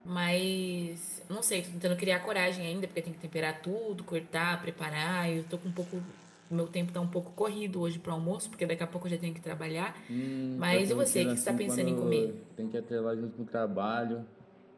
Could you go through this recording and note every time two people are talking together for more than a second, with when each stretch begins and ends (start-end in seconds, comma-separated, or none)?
10.6-12.4